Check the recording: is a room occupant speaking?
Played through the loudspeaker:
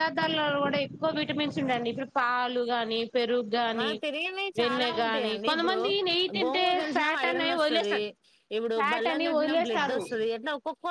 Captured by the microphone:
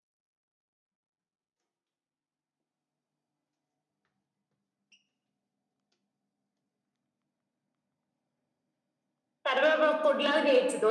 Yes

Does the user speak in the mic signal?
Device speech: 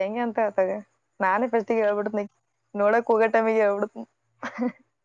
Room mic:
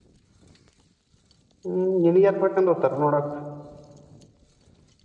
Yes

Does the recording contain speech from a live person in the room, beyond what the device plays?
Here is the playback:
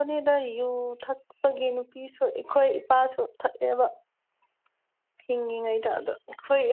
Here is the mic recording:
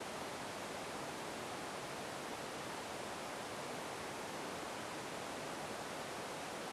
No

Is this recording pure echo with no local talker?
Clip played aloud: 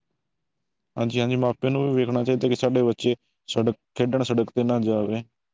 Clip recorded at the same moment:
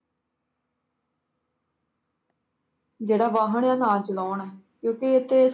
No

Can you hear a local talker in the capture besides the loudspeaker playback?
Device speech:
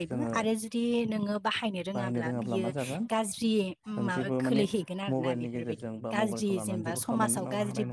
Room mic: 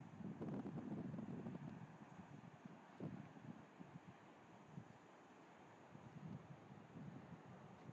No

